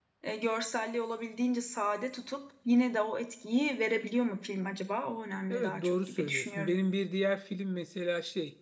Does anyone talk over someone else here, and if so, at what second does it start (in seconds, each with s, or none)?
5.5 s